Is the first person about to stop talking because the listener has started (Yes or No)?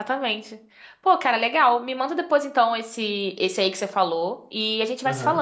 No